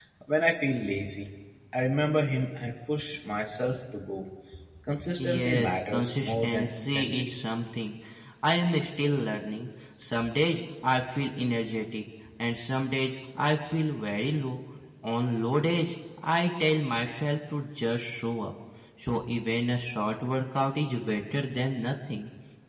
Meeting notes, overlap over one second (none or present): present